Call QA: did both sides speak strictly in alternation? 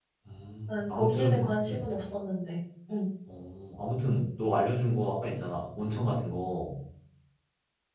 No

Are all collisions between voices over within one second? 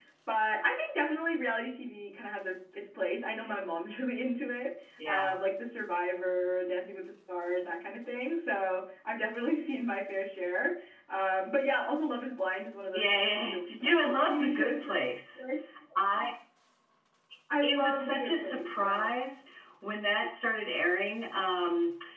No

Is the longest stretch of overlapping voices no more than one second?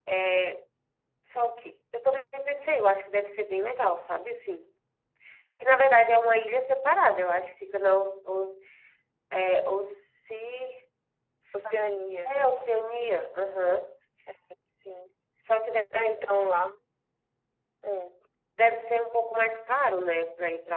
Yes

